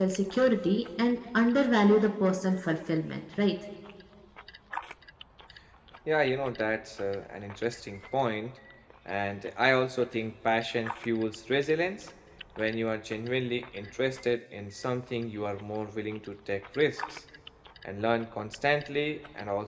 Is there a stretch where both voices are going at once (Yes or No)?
No